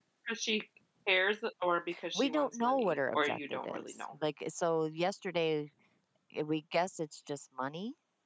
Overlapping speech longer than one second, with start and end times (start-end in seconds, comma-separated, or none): 2.1-3.9